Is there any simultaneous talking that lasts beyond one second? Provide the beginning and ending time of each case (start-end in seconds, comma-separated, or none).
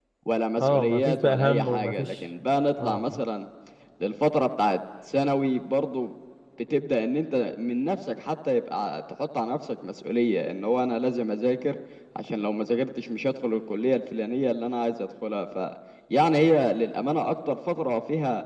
0.6-2.1